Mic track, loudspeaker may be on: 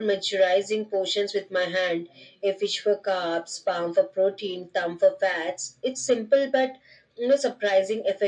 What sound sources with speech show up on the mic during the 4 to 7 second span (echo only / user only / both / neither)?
echo only